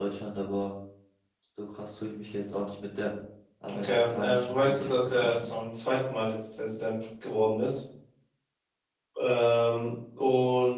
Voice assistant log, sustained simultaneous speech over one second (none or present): present